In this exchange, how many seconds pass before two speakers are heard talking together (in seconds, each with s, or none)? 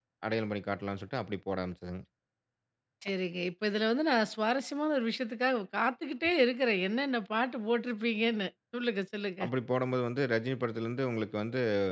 none